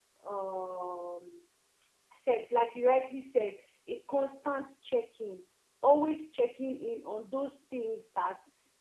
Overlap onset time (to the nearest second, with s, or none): none